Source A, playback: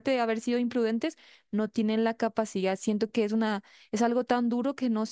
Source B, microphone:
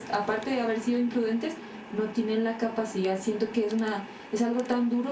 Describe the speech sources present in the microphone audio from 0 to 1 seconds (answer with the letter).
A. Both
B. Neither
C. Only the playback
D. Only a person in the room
C